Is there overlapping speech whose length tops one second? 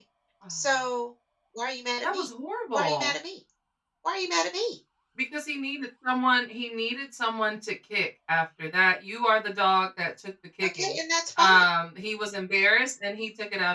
No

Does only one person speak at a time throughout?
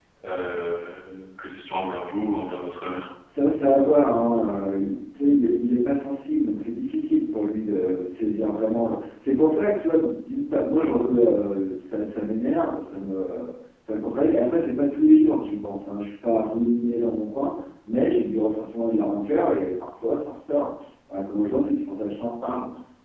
Yes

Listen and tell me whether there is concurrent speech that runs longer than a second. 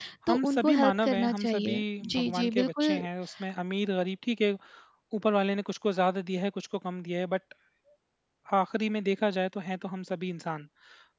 Yes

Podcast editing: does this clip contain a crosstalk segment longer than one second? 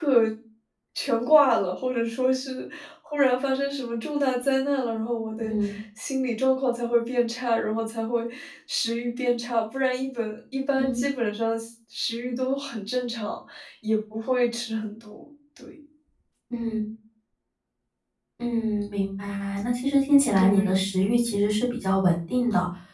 No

